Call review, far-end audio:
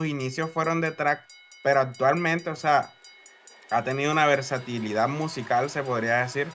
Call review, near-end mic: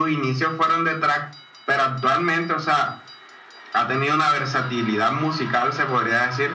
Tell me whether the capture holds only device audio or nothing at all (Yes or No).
Yes